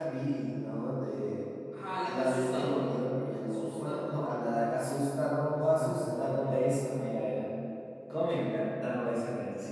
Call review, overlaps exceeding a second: present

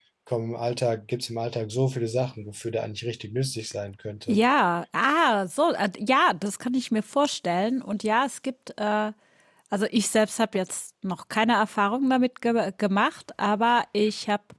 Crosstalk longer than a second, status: none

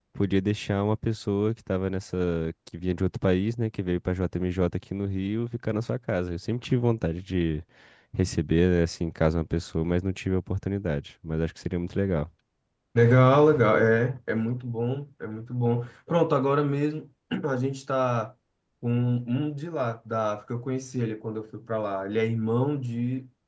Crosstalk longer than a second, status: none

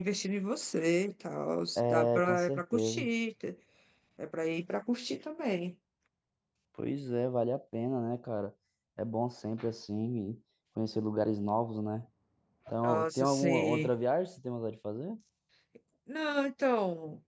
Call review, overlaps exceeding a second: present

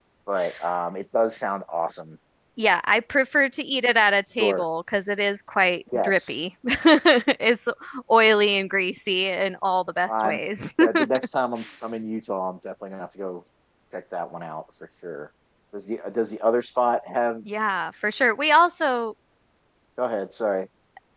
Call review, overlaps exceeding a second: none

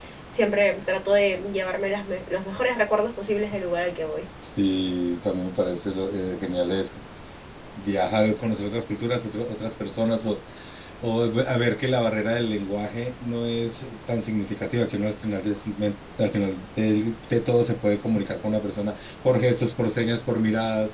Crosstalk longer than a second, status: none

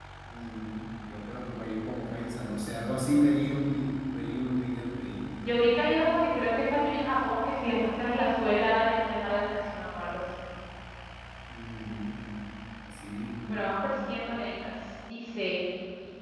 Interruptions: none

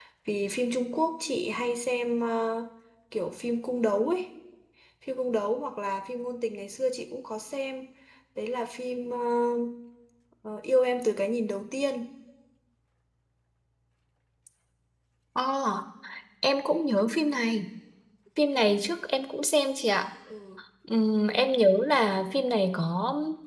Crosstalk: none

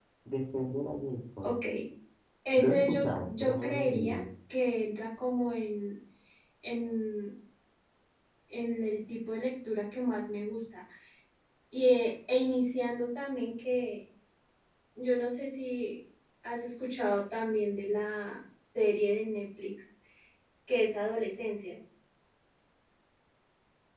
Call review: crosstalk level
present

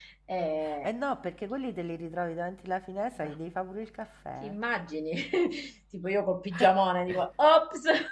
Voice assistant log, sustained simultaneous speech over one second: none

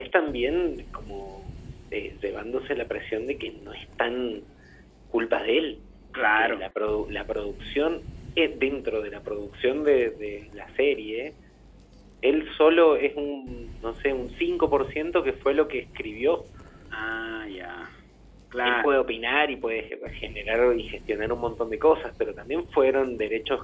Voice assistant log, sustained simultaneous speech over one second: none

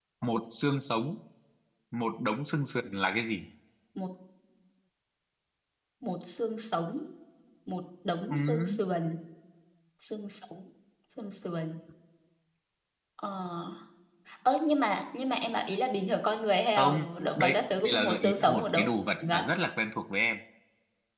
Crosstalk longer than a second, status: present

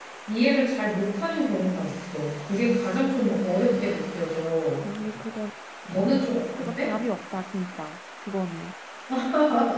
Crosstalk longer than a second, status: none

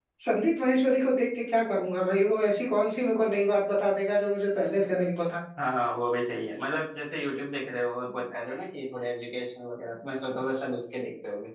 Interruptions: none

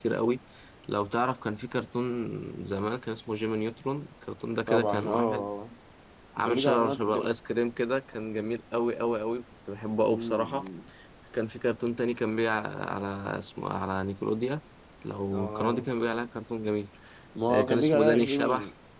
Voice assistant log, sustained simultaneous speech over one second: present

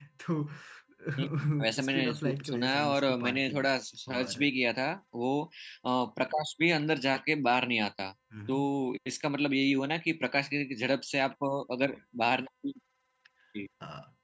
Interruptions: present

